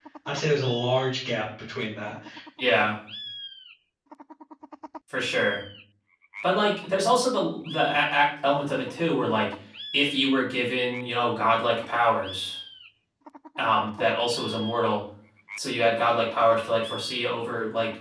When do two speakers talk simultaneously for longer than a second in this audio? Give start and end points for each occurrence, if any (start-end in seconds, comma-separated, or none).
none